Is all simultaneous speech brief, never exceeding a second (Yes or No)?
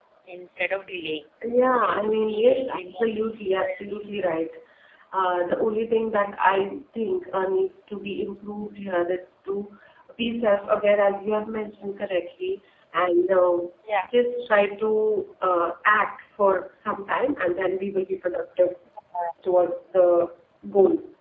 No